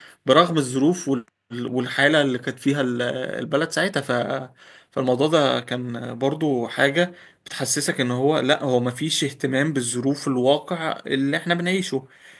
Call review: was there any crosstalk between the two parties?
No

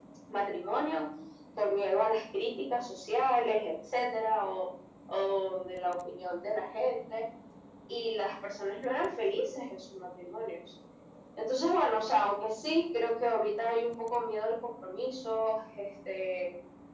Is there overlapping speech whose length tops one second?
No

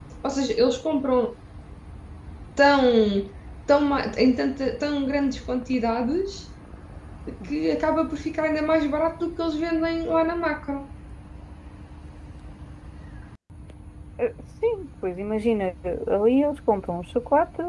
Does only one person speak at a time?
Yes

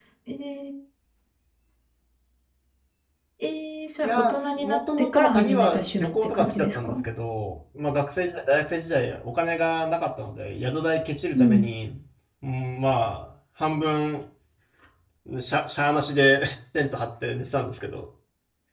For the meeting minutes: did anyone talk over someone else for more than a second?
Yes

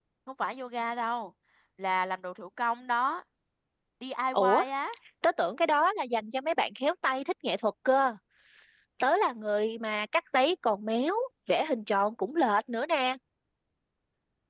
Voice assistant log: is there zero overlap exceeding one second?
Yes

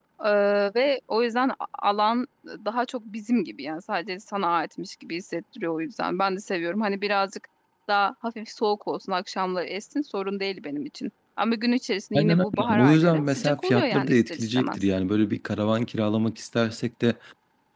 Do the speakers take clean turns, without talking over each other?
No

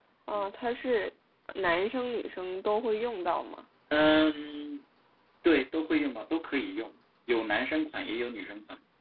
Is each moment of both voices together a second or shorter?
Yes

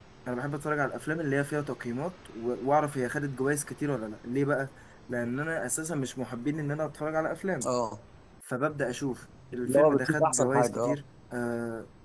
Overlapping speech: Yes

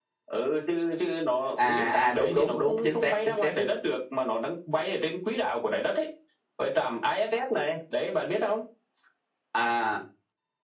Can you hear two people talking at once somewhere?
Yes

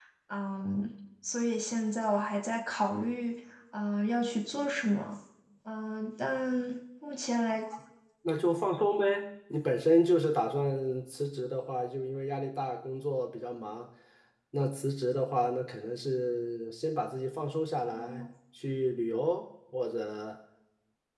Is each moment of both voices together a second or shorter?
Yes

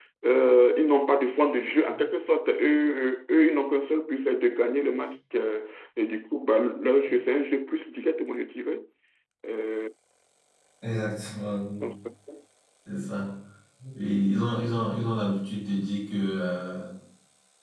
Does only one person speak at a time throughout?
Yes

